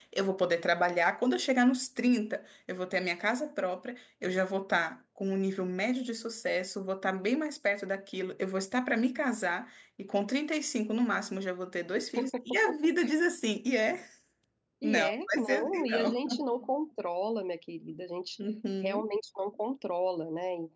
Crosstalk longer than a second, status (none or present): present